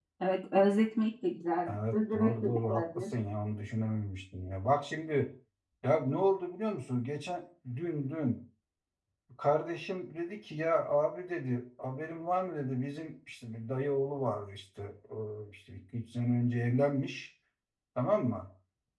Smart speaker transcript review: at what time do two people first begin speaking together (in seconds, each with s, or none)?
1.7 s